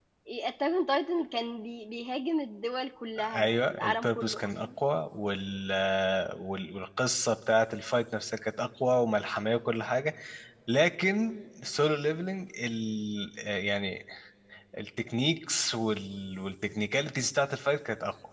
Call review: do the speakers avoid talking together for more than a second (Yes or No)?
No